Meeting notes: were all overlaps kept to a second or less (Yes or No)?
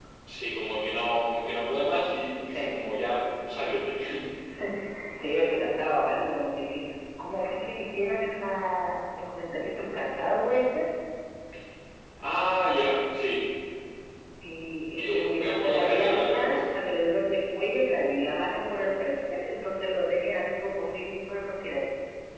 No